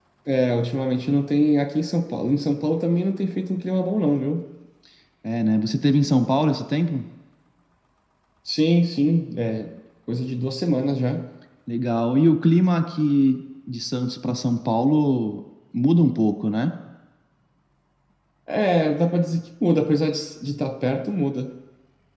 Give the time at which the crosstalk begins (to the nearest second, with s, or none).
none